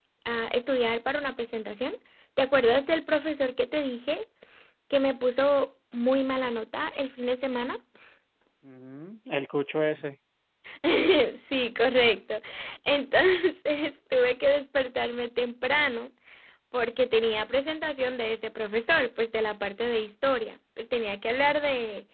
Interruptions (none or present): none